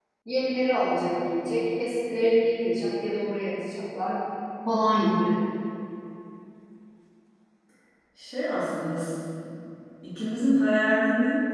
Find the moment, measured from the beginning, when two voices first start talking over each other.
none

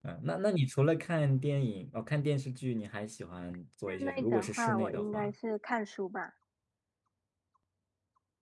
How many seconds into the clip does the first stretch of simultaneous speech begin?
3.9 s

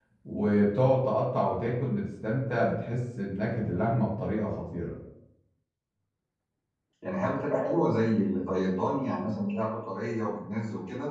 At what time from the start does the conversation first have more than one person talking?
none

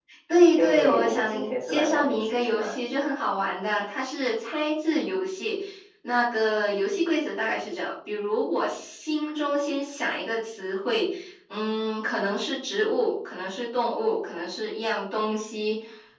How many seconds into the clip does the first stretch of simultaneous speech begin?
0.6 s

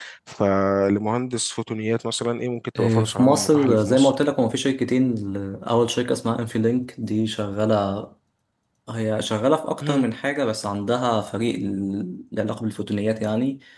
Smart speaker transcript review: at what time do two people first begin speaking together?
2.8 s

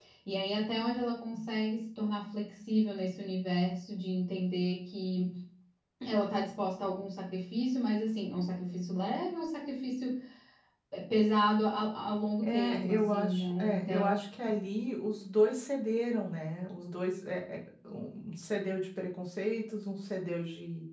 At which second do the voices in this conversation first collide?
12.4 s

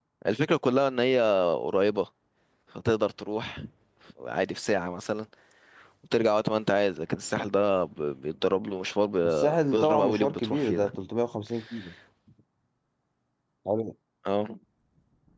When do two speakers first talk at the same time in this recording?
9.2 s

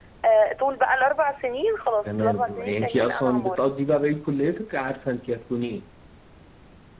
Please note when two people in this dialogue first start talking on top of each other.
2.0 s

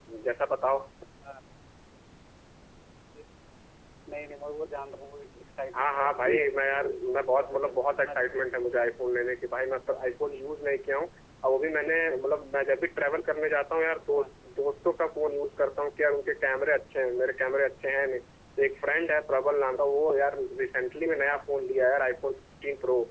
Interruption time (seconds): 5.7 s

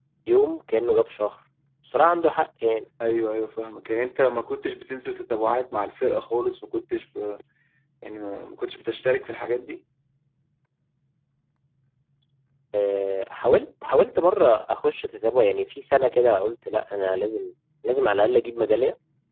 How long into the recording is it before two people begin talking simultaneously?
none

